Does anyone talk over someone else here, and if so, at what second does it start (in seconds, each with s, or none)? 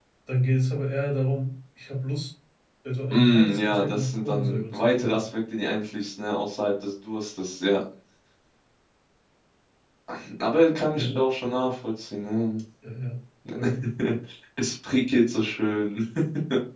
3.1 s